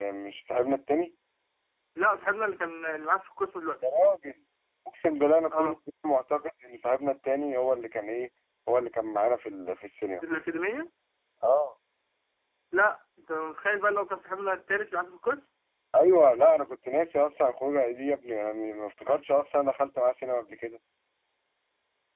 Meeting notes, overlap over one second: none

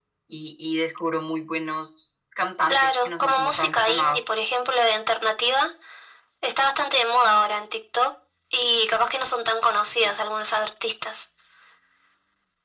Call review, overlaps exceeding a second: present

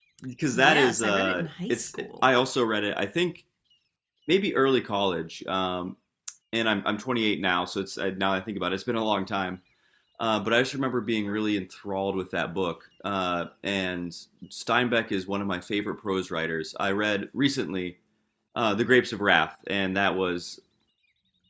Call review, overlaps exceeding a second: present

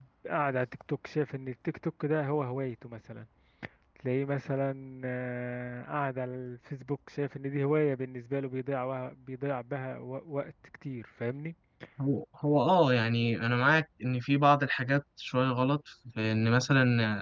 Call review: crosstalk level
none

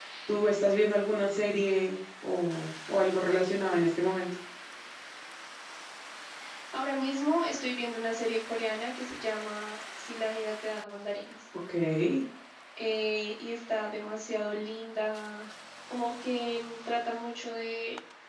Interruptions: none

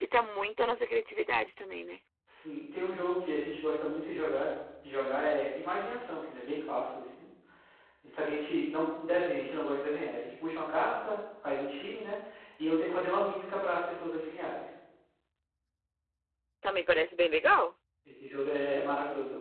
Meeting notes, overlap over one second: none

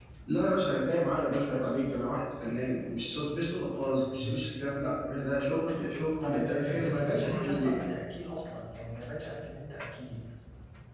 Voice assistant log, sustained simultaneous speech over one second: present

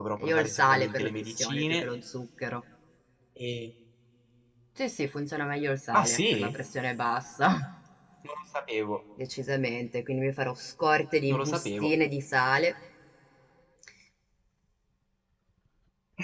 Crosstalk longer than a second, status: present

